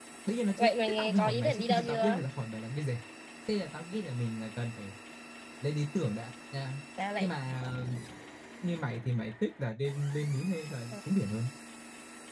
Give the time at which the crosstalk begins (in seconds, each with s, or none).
0.6 s